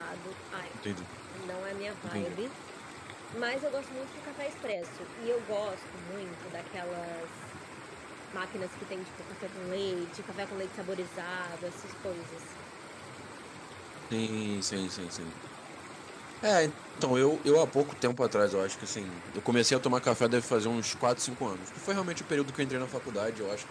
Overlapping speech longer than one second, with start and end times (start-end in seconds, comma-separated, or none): none